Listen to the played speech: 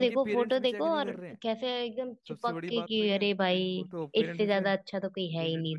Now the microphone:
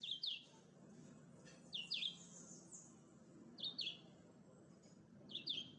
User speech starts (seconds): none

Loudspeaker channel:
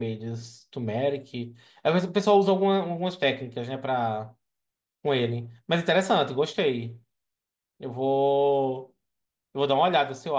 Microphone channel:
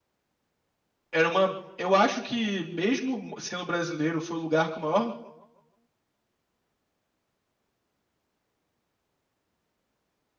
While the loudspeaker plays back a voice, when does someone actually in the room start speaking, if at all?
1.1 s

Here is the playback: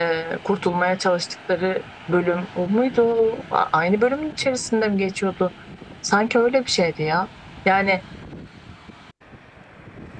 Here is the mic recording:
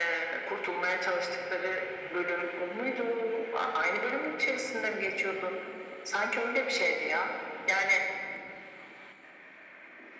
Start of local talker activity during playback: none

